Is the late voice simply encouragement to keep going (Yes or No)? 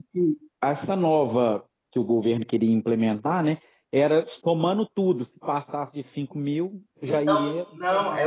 No